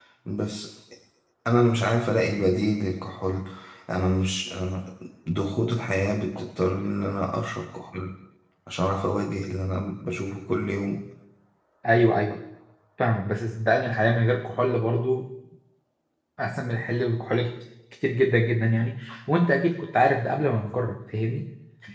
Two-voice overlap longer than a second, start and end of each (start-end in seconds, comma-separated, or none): none